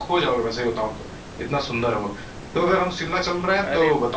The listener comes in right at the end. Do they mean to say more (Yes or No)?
No